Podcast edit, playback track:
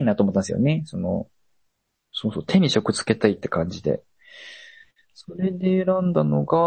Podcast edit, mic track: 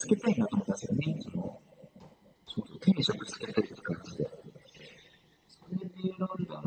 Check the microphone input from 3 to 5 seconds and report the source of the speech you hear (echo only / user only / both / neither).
echo only